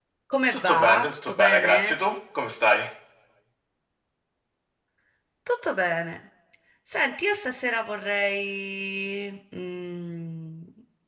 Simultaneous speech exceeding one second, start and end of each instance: 0.5-2.0

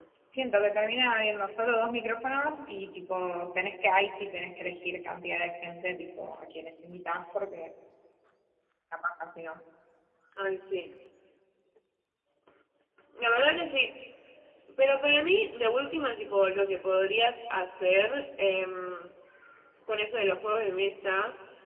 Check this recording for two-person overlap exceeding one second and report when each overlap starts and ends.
none

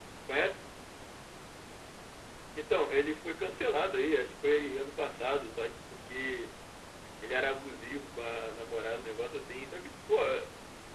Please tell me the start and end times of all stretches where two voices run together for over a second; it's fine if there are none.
none

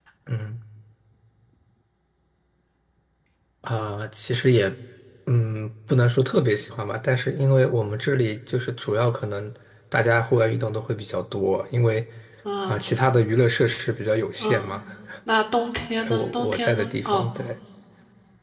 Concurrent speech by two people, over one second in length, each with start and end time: 16.0-17.2

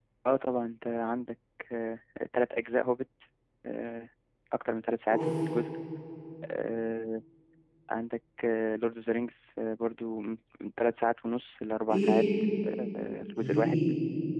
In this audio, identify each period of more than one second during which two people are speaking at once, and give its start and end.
none

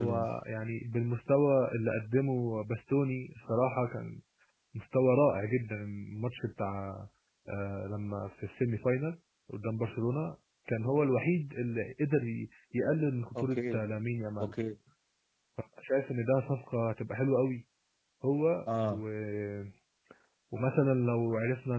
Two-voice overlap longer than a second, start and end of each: none

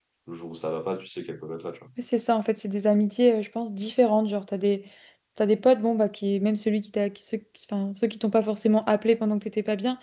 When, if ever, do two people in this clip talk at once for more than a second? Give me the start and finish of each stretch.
none

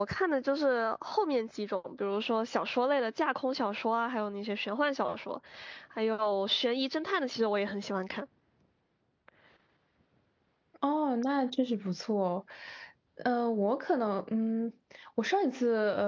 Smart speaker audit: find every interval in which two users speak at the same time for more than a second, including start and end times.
none

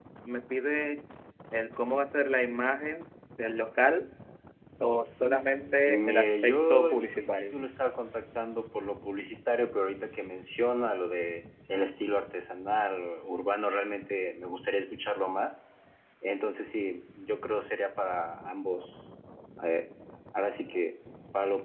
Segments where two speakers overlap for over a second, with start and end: 5.9-7.5

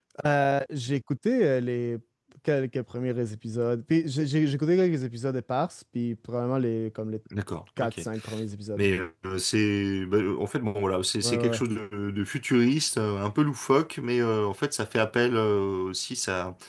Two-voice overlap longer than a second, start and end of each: none

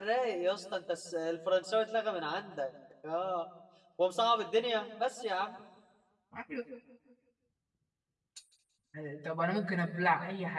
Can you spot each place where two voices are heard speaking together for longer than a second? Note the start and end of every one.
none

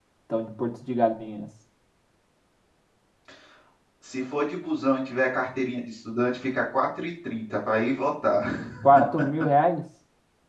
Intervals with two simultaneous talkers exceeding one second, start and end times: none

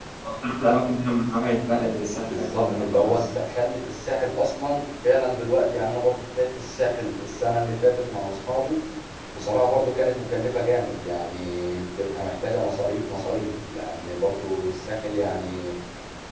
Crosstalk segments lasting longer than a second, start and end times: 2.0-3.3

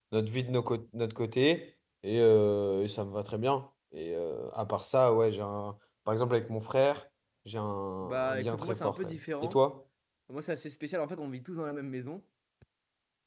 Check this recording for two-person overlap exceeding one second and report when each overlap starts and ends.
8.0-9.6

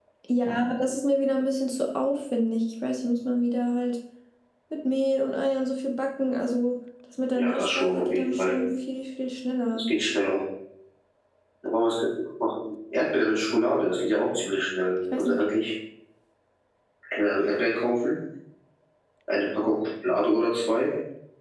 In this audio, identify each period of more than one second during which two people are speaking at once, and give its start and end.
7.3-8.6

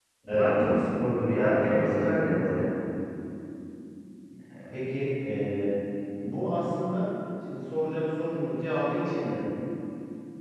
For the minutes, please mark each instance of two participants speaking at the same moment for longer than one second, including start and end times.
1.3-2.6

